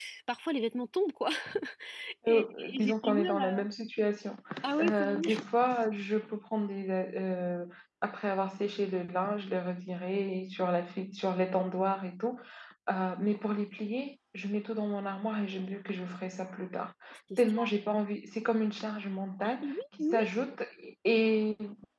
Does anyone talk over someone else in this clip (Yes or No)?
Yes